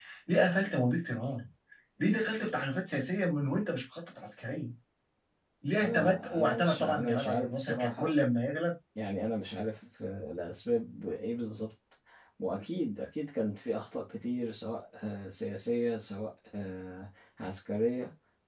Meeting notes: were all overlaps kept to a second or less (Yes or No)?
No